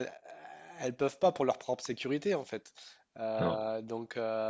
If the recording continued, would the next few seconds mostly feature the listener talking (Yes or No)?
No